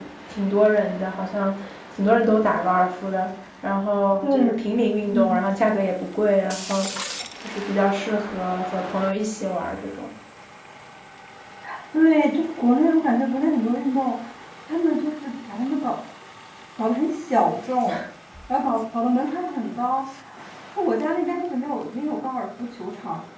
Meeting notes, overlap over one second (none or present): none